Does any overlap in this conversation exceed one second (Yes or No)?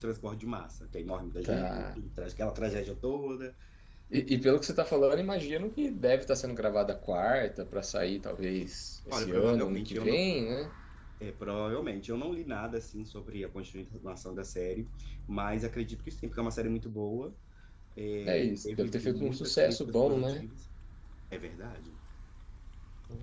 Yes